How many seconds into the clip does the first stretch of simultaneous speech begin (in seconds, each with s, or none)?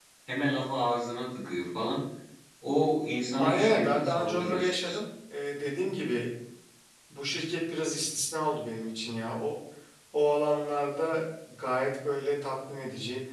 3.4 s